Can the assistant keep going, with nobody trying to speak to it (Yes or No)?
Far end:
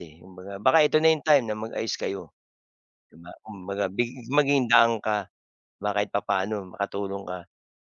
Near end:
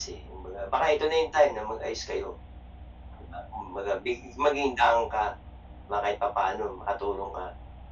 Yes